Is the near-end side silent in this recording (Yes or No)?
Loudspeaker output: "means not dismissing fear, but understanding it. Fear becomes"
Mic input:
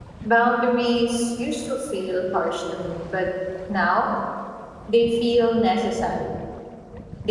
No